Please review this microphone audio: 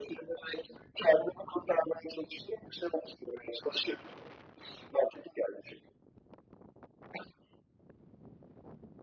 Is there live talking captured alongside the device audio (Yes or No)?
No